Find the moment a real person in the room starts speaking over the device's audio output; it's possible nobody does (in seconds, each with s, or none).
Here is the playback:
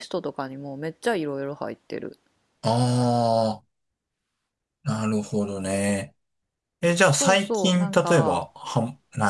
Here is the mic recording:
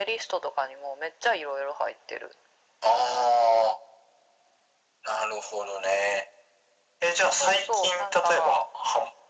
none